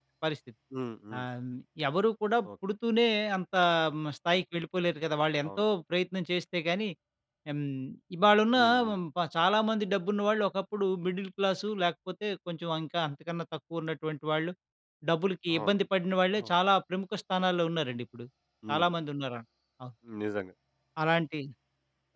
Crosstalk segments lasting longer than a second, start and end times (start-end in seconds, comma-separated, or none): none